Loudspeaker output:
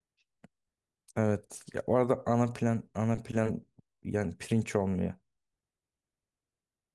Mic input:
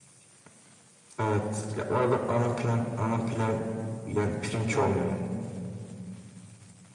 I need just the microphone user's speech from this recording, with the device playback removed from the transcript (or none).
Aynen.